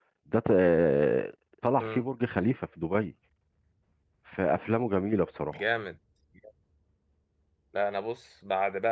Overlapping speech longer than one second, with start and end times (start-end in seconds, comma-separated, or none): none